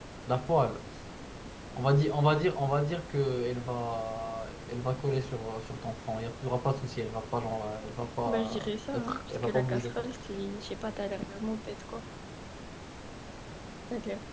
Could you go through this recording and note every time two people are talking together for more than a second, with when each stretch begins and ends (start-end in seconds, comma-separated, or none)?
8.2-10.0